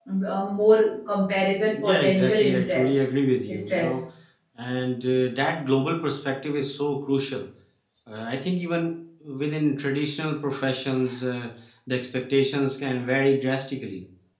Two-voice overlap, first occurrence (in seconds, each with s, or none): 1.7 s